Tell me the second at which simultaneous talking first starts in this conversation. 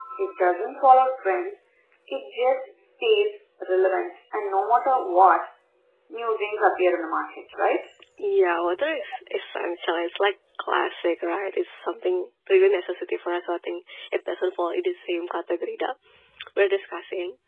none

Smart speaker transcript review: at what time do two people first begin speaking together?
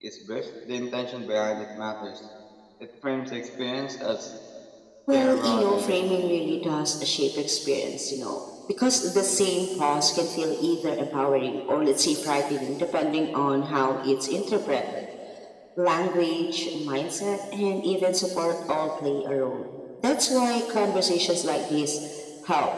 5.1 s

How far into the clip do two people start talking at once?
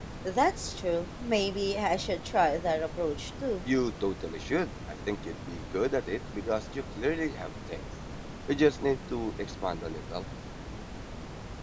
none

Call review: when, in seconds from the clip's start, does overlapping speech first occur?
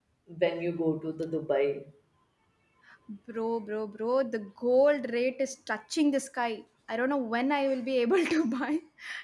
none

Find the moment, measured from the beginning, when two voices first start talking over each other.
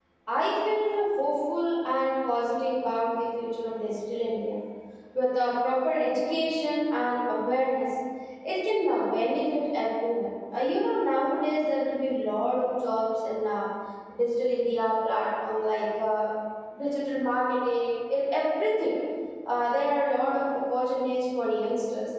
none

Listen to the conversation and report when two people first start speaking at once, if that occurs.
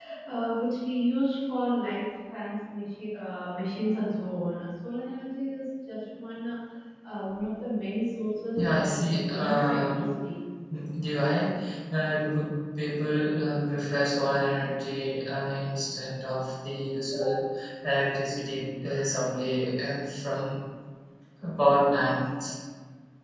8.6 s

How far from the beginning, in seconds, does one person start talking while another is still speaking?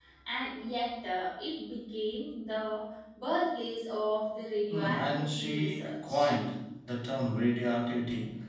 4.7 s

